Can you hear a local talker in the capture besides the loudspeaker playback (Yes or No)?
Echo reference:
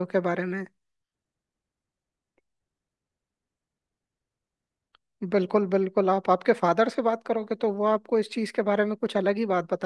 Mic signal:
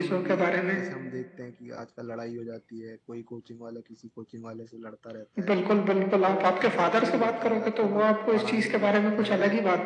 Yes